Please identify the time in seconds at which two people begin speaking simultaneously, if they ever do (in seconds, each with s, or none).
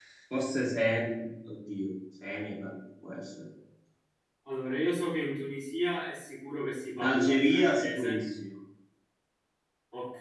7.0 s